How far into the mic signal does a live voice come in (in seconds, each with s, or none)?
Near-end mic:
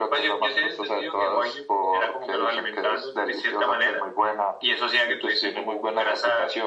none